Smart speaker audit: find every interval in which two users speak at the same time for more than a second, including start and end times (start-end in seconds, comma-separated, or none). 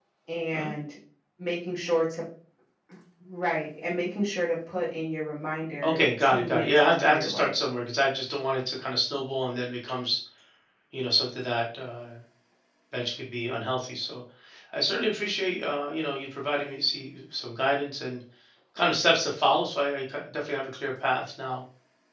5.8-7.5